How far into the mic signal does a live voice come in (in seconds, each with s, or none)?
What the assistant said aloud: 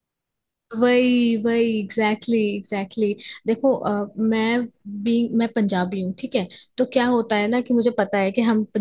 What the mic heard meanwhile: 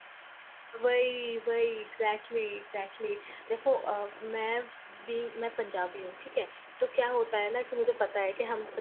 none